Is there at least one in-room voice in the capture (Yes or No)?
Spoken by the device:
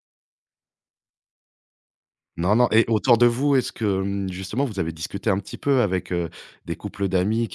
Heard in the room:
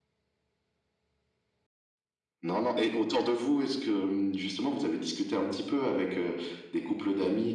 No